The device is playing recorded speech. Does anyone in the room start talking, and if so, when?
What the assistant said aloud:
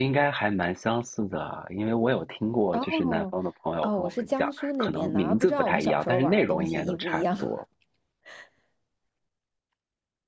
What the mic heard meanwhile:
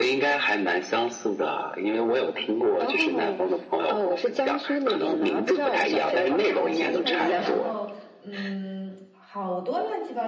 6.0 s

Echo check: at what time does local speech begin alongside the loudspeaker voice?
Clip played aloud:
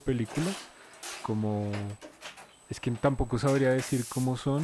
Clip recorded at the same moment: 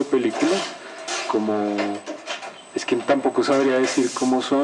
none

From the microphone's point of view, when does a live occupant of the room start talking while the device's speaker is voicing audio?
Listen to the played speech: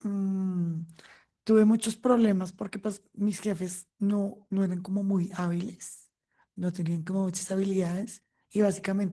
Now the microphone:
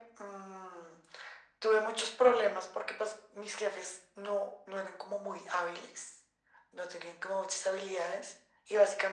none

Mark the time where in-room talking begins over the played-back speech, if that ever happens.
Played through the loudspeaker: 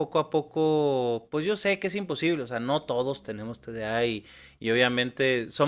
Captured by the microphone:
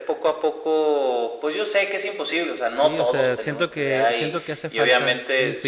2.6 s

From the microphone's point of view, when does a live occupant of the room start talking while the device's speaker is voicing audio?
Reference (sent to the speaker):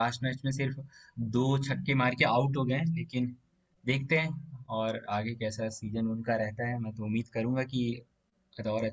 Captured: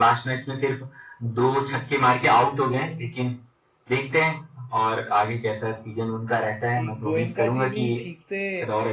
6.7 s

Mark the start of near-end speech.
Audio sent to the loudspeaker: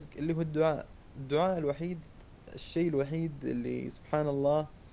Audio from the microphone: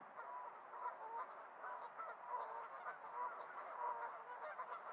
none

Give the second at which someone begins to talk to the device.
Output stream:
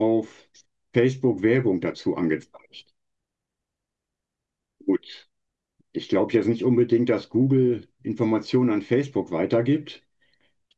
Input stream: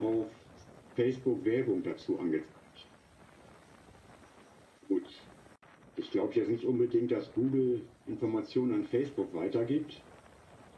none

